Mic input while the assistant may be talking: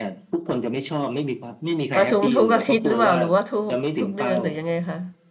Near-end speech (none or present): present